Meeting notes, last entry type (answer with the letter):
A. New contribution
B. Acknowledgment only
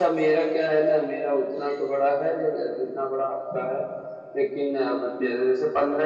B